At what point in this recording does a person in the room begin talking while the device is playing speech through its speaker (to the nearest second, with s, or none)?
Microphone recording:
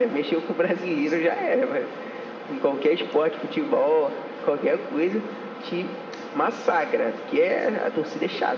none